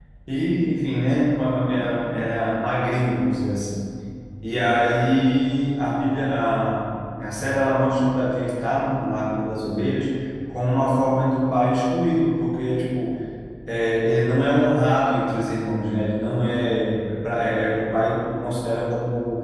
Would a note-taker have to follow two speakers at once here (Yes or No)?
No